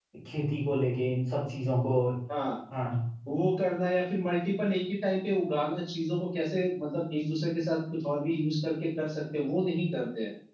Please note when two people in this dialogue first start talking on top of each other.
none

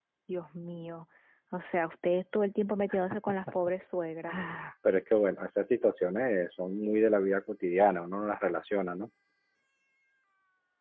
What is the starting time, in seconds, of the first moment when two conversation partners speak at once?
none

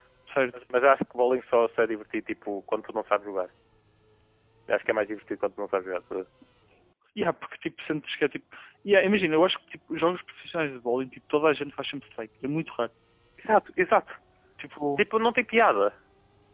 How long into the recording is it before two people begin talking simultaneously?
none

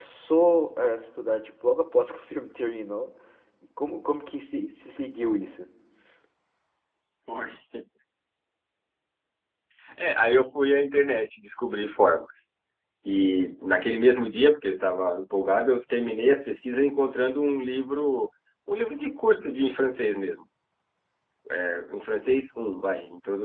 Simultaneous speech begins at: none

